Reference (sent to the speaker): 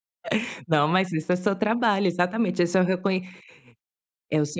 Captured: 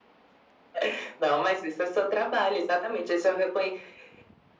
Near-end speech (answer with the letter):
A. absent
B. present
A